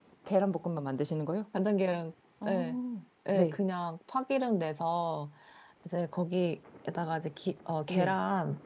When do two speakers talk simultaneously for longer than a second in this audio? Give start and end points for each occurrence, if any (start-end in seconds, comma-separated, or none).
none